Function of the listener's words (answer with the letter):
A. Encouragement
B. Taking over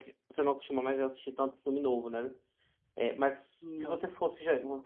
A